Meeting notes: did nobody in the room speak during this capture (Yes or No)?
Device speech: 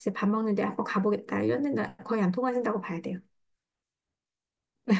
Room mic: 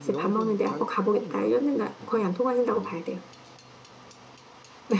No